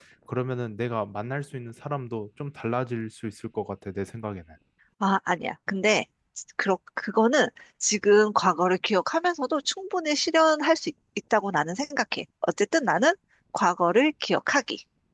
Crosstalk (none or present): none